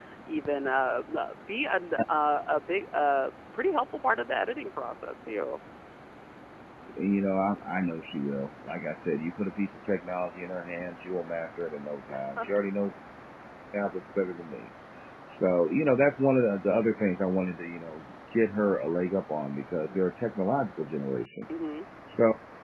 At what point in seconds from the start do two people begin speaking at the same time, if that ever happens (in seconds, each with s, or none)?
none